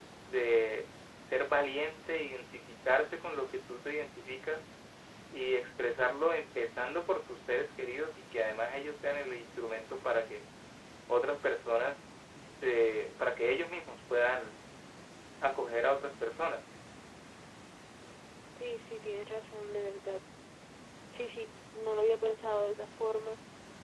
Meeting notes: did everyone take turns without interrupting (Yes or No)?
Yes